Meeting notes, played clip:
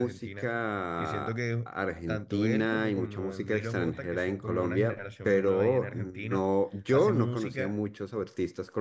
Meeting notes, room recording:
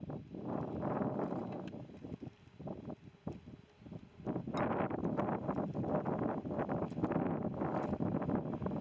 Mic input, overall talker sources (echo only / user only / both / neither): neither